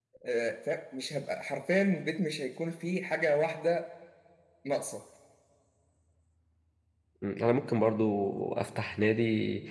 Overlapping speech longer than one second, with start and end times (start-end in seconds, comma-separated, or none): none